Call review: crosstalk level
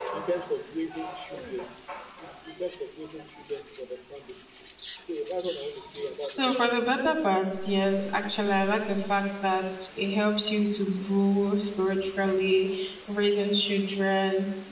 present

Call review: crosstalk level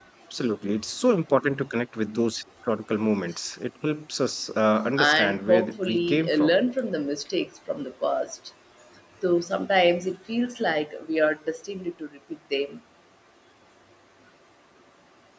present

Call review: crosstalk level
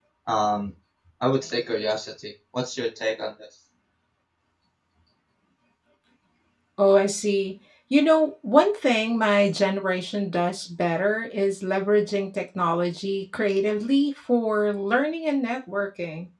none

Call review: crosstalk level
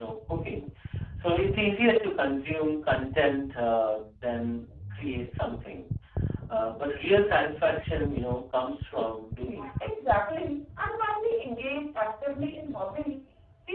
none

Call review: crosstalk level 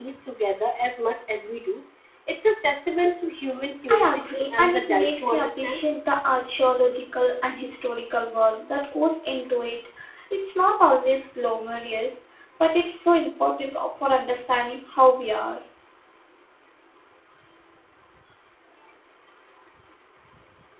present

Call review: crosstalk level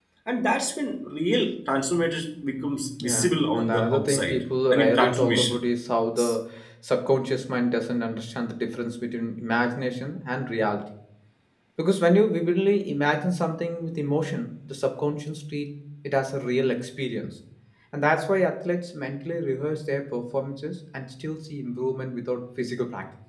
present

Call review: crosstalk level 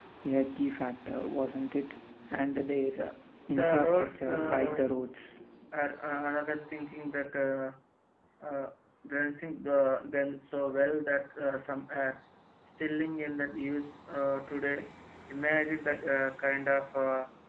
present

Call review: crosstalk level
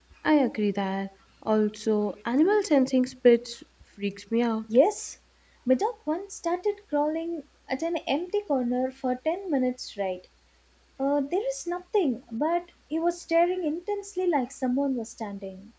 none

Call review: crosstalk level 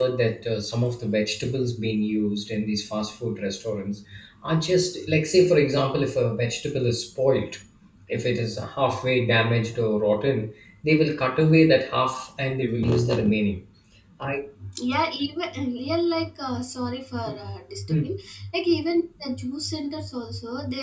none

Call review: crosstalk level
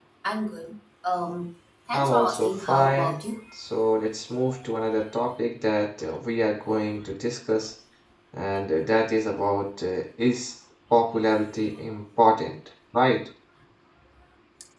present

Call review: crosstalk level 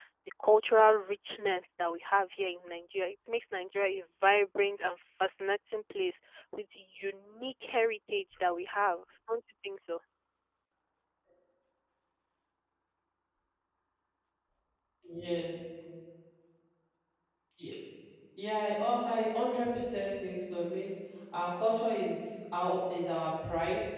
none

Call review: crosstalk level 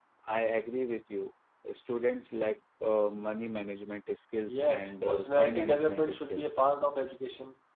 present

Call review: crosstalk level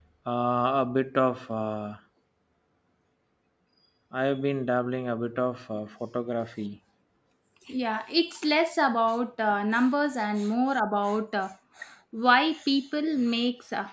none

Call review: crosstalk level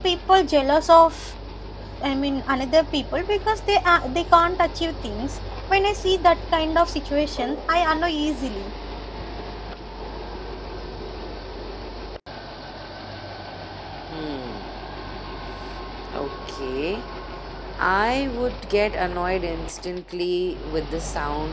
none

